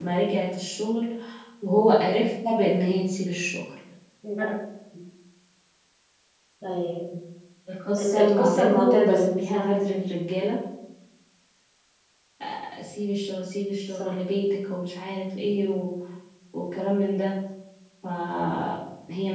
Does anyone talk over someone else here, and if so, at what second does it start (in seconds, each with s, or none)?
8.0 s